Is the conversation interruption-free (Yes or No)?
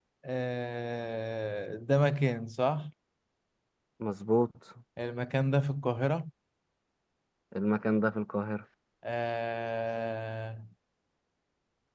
Yes